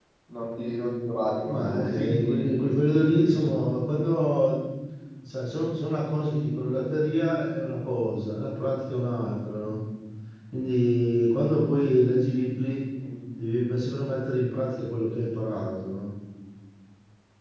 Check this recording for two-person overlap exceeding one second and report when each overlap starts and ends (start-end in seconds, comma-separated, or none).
1.4-3.6